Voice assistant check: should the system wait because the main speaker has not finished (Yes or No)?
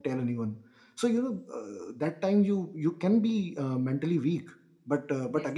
Yes